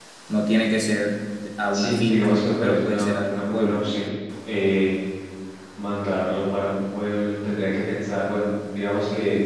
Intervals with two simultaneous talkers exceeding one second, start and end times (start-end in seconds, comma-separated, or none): 1.7-3.8